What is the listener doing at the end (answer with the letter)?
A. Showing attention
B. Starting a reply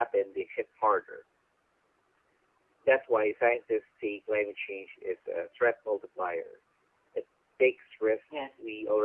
A